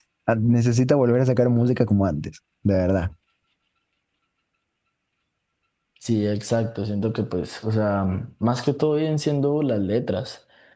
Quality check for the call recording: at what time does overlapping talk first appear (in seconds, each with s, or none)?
none